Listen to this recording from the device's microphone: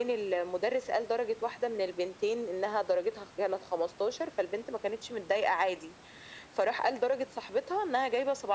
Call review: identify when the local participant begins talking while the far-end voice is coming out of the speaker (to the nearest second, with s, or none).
none